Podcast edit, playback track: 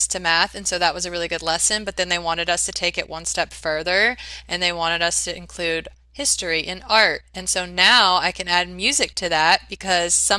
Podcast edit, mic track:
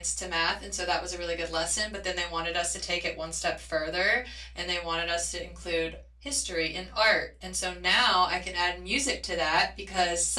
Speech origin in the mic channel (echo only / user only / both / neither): echo only